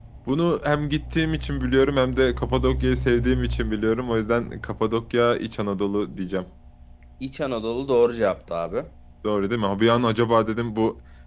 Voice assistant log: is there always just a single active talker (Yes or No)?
Yes